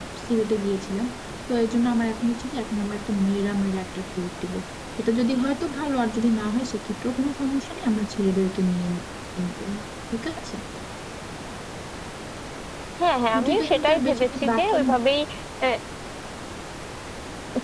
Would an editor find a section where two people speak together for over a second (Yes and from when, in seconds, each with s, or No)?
Yes, from 13.3 s